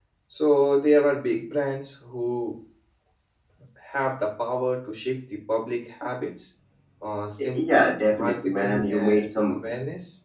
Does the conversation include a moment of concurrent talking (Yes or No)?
Yes